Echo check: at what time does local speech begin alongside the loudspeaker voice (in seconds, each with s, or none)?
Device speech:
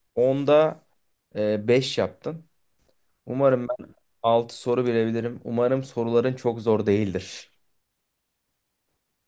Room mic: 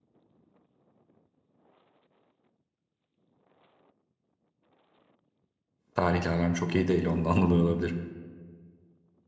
5.9 s